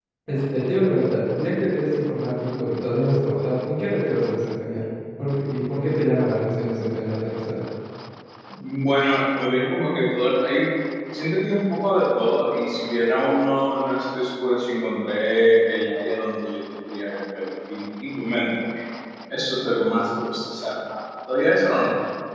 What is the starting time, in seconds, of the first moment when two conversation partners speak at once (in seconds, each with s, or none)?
none